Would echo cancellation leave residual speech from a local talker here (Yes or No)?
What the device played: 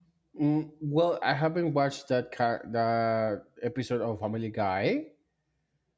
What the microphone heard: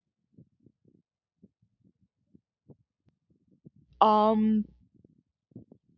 Yes